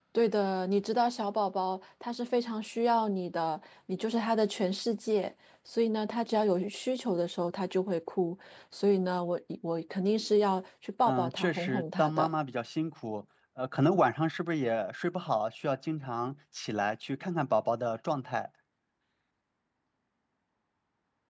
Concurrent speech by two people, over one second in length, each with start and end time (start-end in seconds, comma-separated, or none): 11.1-12.3